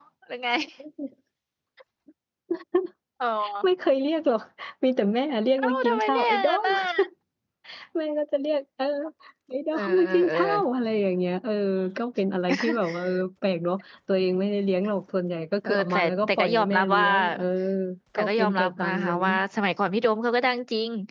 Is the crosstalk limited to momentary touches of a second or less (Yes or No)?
No